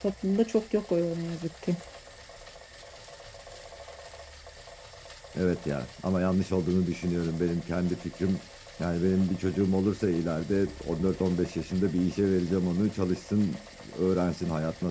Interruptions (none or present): none